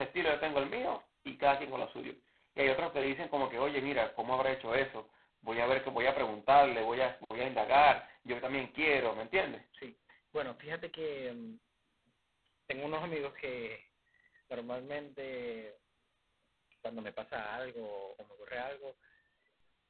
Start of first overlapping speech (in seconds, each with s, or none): none